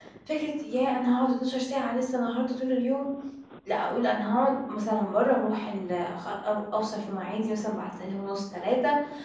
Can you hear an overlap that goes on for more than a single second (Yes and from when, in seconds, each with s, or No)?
No